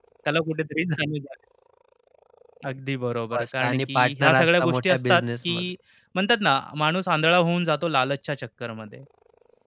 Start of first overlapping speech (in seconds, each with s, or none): 3.3 s